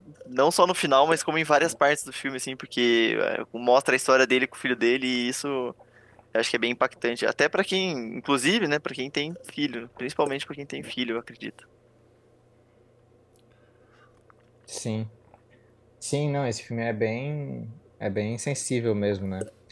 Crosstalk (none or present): none